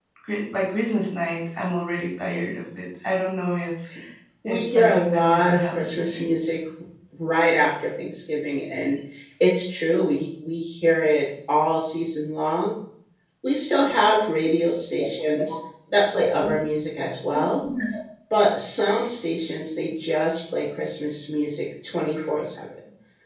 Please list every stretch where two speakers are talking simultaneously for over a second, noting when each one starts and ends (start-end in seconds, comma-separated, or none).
4.5-6.2